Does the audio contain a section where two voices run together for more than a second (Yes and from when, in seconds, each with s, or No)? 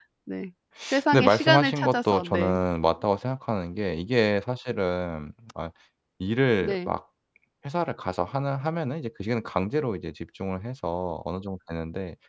Yes, from 1.1 s